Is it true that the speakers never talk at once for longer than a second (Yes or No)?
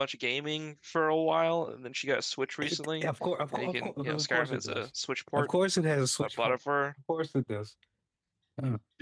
No